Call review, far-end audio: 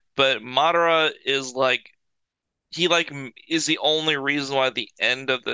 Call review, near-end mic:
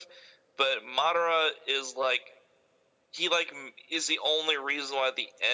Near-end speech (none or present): none